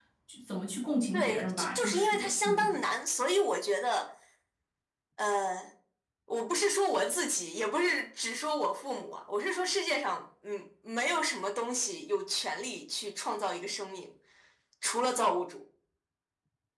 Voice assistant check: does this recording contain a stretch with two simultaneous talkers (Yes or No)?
Yes